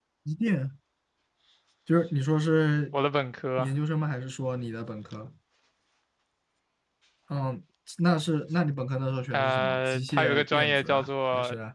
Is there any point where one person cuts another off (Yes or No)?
Yes